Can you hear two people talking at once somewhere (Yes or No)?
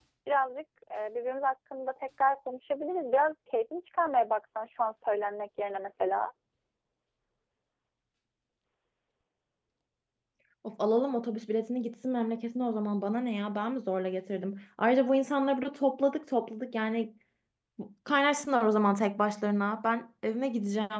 No